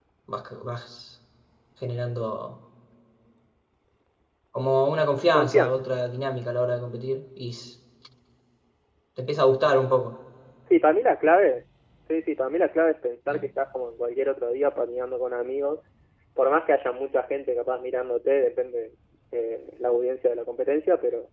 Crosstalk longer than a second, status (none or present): none